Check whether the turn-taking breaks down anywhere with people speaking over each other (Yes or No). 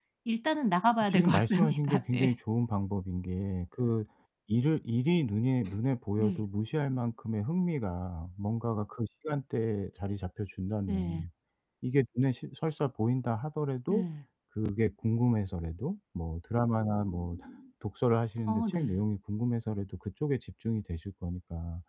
Yes